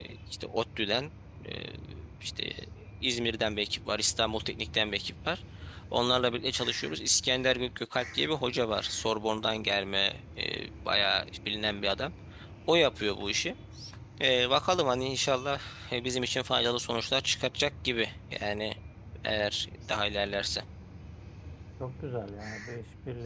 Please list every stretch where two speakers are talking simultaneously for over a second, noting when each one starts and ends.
none

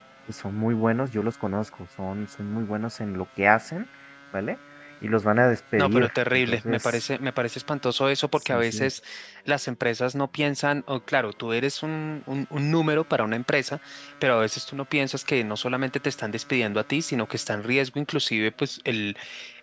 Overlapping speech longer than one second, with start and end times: 5.8-7.0

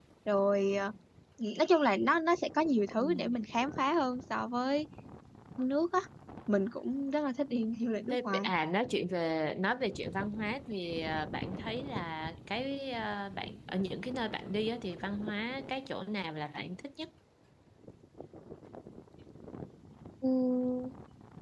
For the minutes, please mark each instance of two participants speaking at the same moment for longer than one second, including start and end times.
none

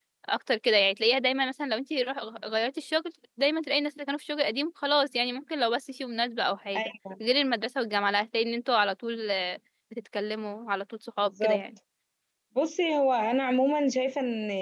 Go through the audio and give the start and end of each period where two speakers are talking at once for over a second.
none

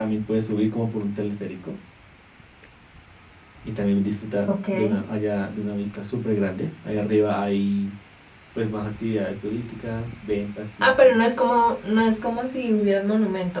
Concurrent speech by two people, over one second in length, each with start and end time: none

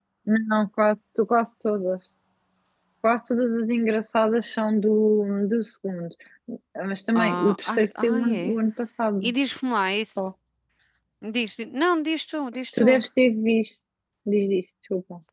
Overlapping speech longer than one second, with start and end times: 7.2-8.6

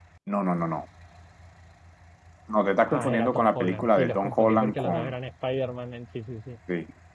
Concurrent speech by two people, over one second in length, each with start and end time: 2.9-5.1

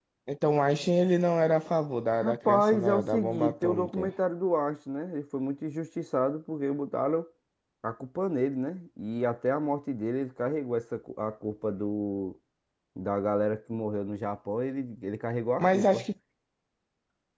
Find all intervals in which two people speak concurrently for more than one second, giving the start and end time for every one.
2.2-4.1

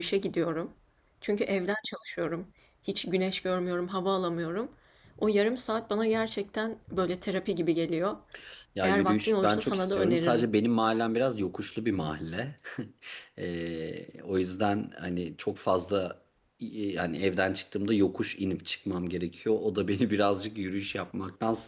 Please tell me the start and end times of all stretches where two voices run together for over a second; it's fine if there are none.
8.8-10.5

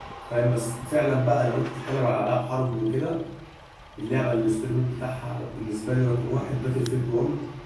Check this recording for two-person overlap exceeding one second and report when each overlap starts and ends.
none

